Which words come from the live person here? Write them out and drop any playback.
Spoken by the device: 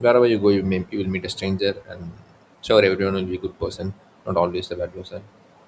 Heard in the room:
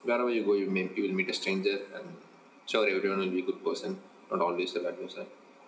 none

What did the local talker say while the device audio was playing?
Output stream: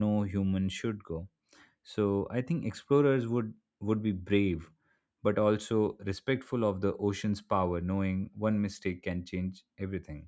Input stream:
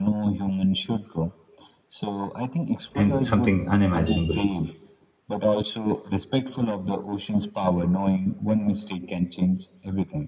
and something unimaginable

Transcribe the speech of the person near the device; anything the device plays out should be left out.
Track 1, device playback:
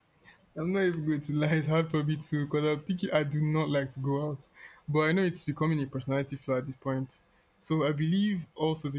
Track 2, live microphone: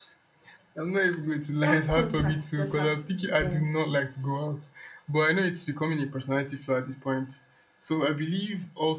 that contact just has to be there.

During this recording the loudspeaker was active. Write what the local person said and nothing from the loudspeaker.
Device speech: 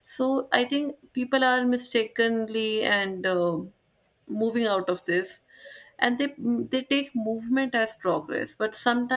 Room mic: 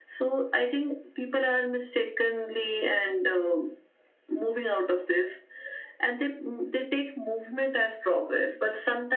none

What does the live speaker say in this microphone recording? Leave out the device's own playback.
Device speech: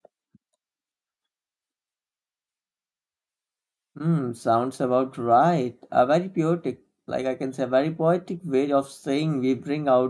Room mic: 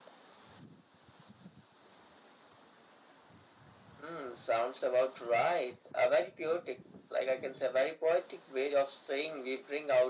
none

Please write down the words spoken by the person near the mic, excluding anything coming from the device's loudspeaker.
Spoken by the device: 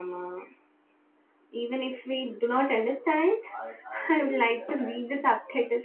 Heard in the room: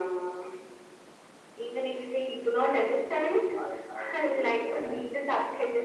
none

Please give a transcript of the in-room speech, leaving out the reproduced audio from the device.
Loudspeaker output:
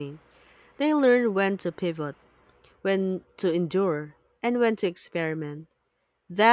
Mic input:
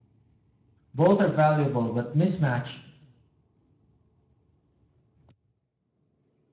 Both are valuable, but mismatch

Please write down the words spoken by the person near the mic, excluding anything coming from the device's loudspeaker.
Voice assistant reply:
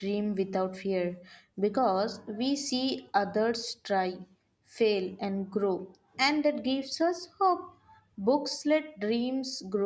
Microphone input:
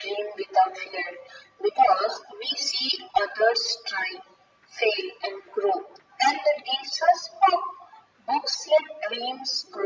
none

